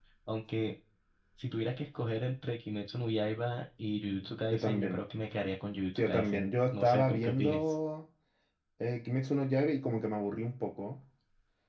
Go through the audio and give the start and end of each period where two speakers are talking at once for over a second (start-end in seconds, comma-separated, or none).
6.0-7.6